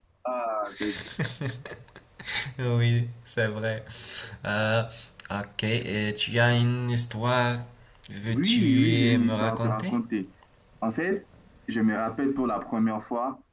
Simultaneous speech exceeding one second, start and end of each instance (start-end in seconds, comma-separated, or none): 8.3-9.9